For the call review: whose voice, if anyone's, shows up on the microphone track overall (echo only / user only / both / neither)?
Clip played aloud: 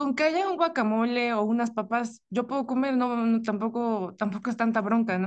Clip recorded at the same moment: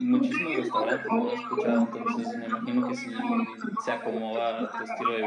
both